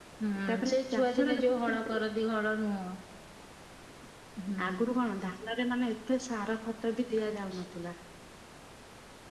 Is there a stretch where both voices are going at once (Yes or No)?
Yes